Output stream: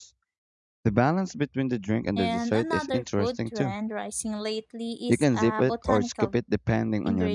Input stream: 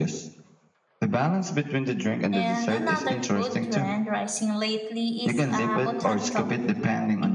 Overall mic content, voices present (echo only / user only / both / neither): echo only